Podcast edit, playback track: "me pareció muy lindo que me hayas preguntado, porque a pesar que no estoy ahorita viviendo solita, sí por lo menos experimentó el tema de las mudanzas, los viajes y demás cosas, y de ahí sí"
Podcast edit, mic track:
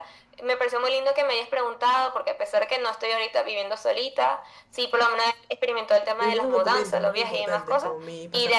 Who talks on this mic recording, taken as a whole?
both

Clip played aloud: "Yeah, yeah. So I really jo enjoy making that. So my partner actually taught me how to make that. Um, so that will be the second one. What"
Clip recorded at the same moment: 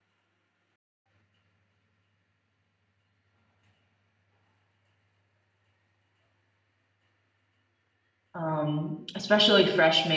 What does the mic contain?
user only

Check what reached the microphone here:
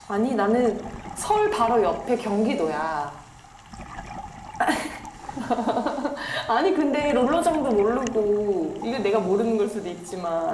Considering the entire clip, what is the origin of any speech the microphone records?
echo only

